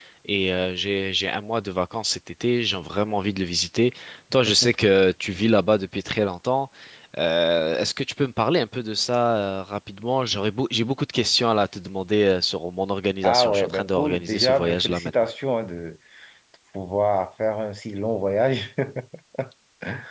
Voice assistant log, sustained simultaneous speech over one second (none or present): present